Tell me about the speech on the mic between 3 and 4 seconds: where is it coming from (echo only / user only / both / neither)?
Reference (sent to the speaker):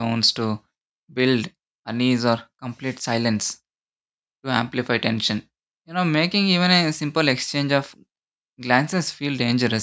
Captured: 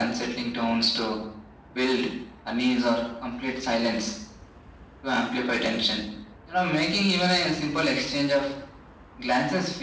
echo only